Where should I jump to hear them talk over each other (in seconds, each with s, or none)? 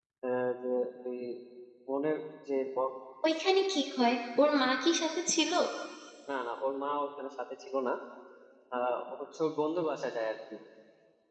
none